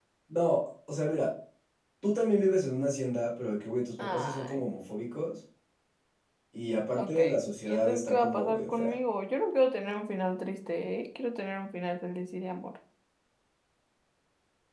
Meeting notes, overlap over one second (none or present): present